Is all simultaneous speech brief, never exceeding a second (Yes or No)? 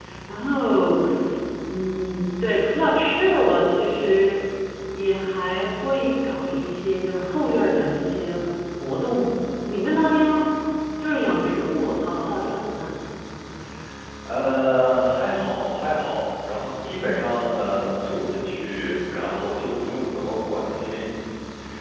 Yes